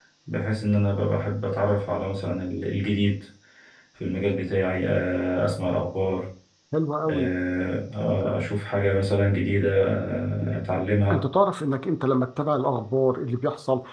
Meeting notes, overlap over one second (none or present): none